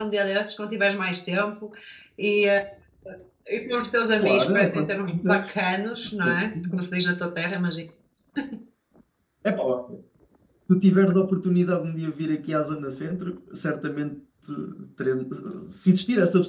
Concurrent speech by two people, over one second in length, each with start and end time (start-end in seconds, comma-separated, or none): 4.2-5.5